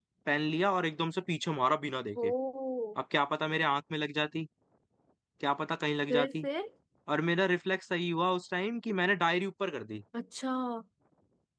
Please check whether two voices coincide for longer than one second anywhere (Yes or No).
No